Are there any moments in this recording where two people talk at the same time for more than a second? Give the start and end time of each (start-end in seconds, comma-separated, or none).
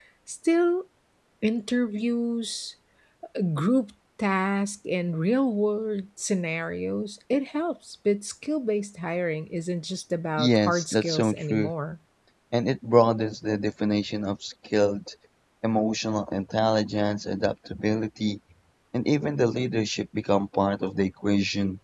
10.4-11.7